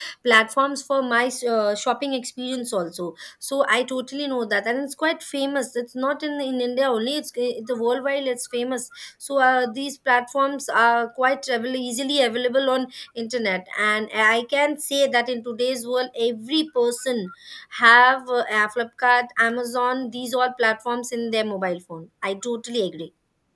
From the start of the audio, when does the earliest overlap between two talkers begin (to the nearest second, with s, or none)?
none